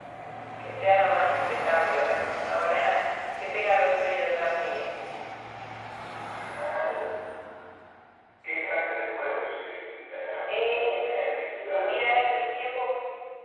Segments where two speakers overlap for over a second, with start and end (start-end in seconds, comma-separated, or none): 10.5-12.4